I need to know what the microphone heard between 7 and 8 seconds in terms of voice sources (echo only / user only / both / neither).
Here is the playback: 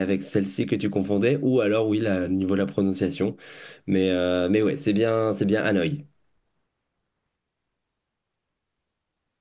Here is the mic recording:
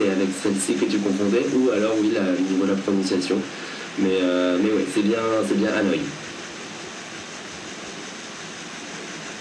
neither